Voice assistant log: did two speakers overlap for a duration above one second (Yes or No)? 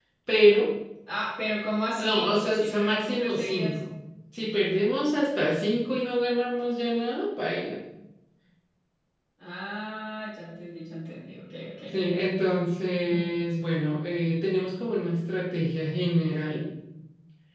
Yes